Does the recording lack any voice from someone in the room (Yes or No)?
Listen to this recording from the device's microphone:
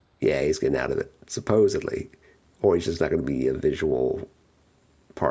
No